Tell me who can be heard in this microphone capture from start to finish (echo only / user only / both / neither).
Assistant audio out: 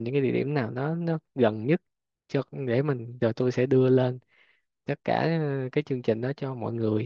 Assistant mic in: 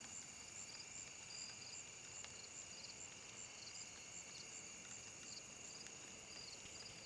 neither